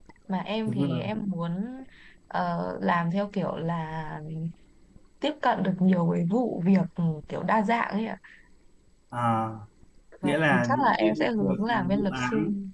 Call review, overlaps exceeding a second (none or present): present